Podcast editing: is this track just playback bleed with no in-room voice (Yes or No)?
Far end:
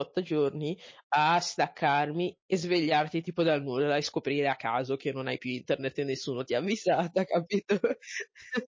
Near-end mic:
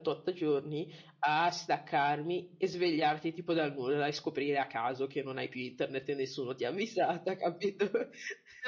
Yes